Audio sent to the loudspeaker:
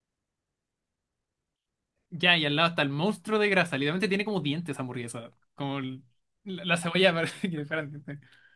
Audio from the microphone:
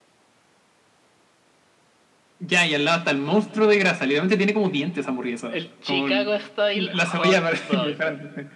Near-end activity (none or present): present